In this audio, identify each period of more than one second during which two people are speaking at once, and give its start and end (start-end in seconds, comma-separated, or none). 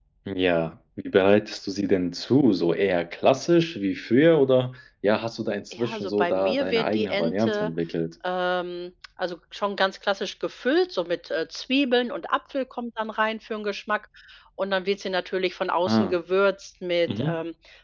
5.7-7.7